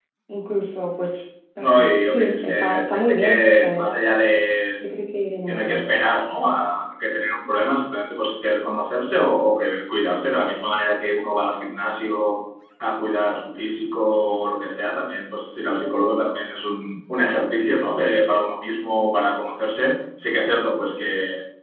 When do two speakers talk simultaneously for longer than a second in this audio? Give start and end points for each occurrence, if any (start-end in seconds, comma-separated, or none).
1.6-4.0